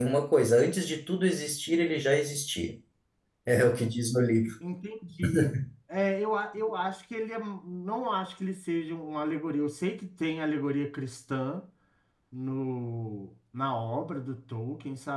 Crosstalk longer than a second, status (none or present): none